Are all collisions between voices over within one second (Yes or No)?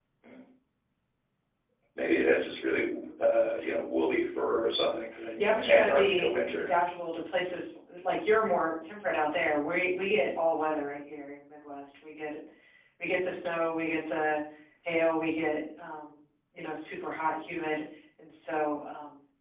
No